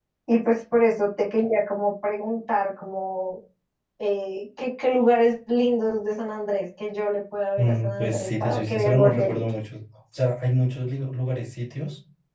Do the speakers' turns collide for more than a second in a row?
Yes, from 7.6 s

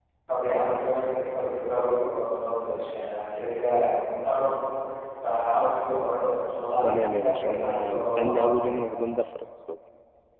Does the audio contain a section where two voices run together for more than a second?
Yes, from 6.8 s

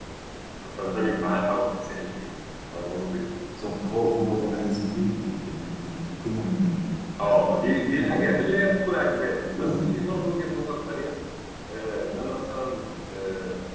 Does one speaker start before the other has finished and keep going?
Yes, from 7.2 s

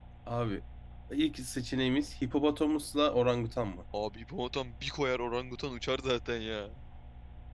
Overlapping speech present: No

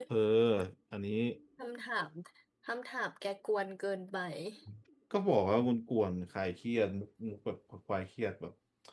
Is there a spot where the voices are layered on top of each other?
No

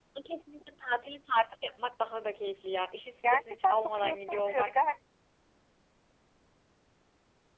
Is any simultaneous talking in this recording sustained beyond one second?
Yes, from 3.2 s

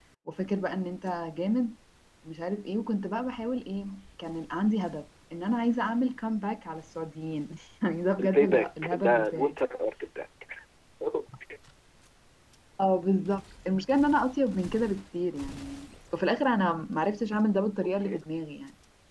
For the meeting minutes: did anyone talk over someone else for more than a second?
Yes, from 8.2 s

